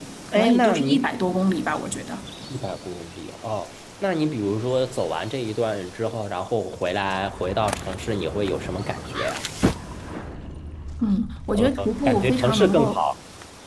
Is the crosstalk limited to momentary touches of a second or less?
No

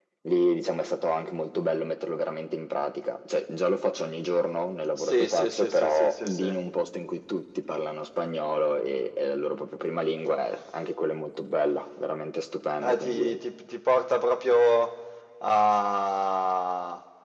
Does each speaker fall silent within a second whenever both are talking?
No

